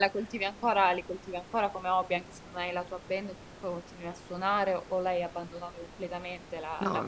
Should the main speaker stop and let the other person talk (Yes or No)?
Yes